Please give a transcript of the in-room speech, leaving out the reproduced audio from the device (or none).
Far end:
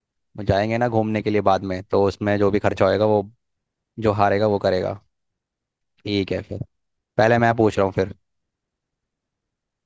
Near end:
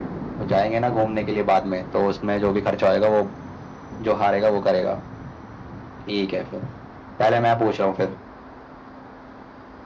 none